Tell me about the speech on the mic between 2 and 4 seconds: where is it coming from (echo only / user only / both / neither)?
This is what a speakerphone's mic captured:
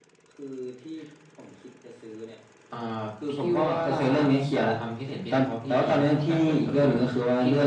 echo only